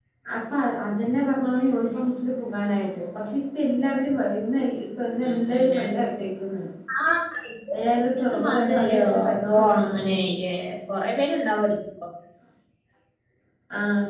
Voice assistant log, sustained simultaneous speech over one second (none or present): present